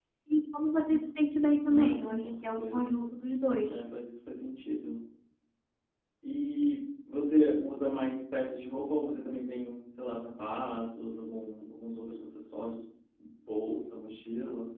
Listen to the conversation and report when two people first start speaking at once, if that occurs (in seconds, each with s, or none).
1.7 s